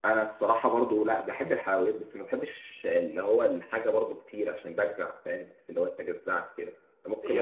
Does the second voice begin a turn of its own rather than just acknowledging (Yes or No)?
Yes